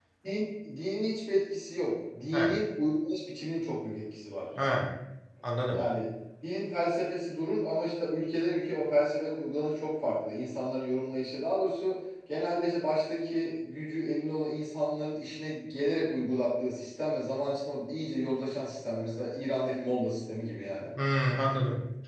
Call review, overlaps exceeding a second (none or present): none